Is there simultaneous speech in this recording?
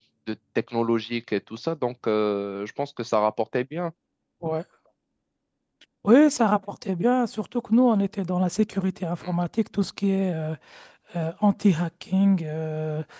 No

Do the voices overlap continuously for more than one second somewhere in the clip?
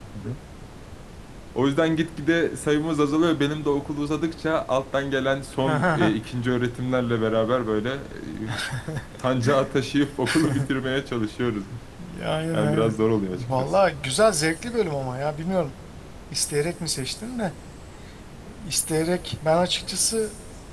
No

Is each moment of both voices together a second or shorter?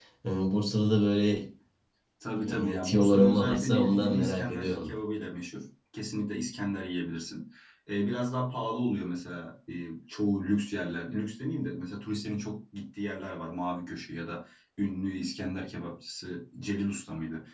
No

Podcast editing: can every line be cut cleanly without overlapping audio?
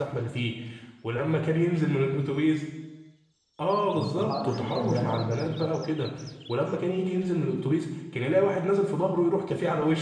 No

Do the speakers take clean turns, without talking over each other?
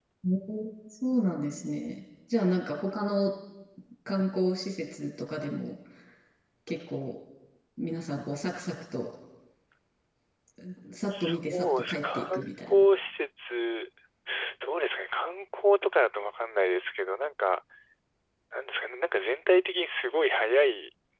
No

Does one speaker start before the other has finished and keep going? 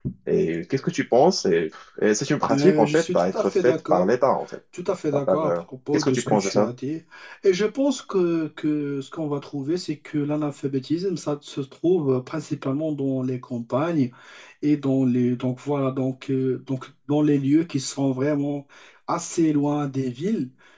Yes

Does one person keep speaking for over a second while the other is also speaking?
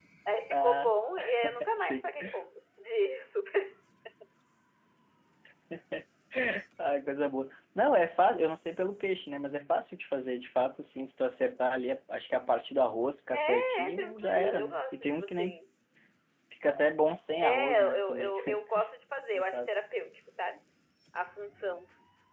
Yes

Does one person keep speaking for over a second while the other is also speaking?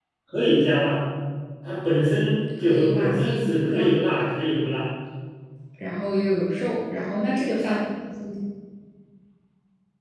Yes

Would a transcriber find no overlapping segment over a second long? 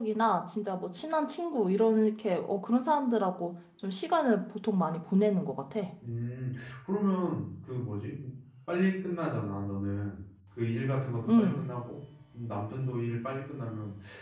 Yes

